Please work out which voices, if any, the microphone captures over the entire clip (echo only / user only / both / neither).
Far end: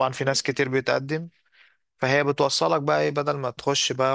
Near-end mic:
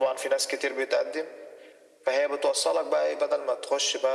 echo only